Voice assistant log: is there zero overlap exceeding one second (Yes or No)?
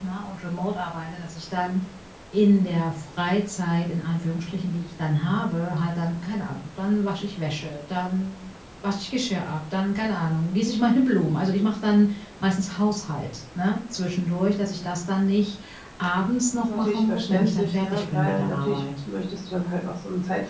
No